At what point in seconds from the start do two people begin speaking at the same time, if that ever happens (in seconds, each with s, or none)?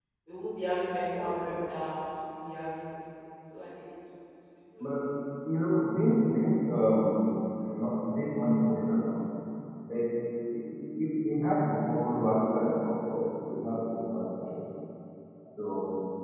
none